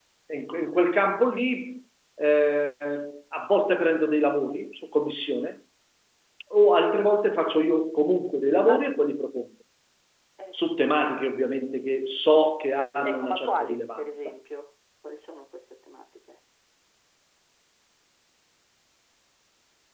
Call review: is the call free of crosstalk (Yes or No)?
No